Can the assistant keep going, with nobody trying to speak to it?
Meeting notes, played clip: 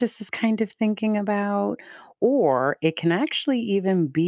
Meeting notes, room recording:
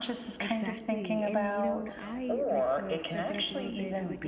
No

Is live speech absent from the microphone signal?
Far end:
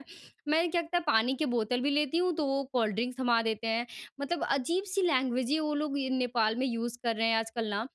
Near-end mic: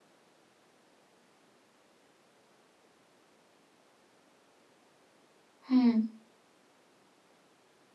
No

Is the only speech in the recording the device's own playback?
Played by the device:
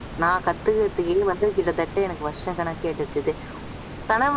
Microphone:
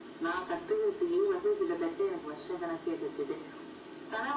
Yes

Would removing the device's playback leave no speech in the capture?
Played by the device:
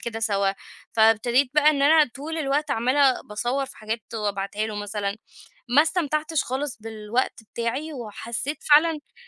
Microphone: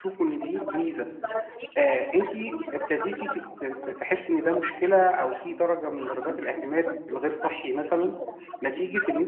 No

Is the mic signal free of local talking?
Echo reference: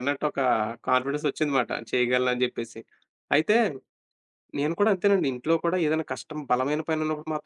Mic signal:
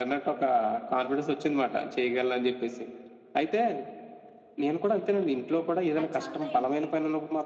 No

